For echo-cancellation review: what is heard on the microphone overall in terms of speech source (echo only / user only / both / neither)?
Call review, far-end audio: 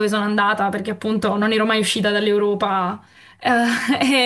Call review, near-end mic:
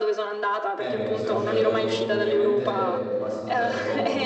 both